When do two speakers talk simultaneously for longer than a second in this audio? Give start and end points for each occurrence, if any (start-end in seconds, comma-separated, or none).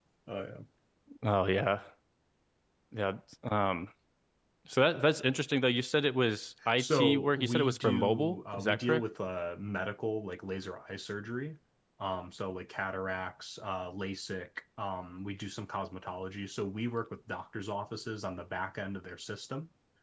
6.8-9.0